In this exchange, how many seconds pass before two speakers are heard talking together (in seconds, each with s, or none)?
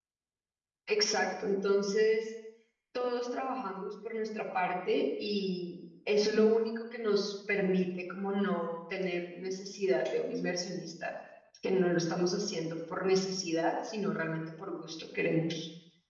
none